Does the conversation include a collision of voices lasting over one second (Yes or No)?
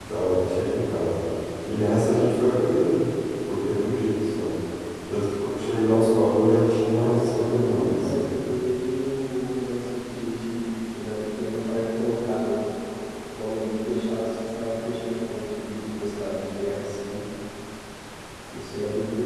Yes